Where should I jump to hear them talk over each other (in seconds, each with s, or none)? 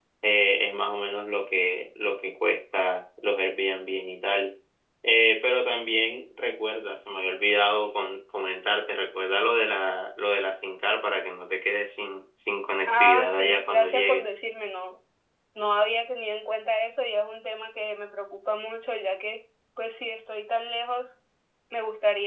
12.9 s